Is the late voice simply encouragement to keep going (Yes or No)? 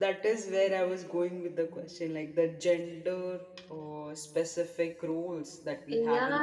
No